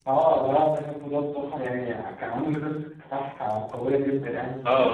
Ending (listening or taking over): taking over